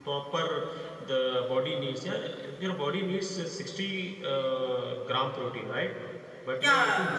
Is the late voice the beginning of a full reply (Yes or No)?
Yes